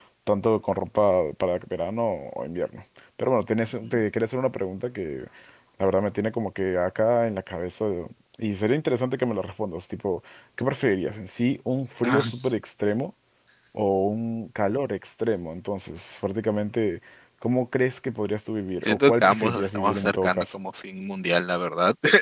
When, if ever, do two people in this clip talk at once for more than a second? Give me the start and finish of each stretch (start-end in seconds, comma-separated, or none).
18.8-20.4